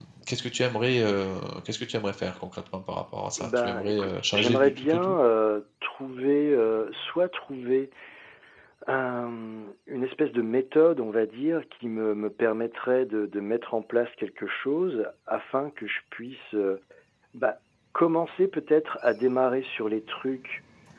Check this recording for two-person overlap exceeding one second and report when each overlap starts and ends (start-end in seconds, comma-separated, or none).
3.4-5.2